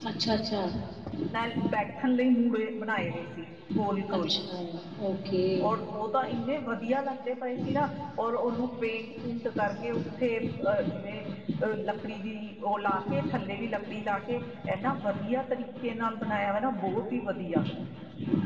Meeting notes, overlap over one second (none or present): none